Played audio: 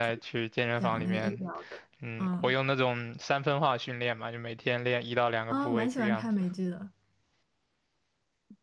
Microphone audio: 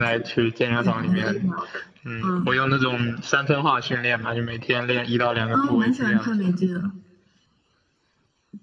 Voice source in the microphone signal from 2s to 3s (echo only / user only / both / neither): echo only